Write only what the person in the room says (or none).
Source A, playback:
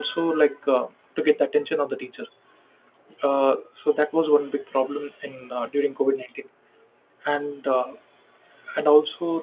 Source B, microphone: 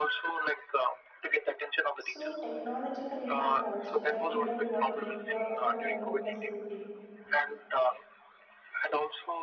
So technological impact also like remote working, work from home facility.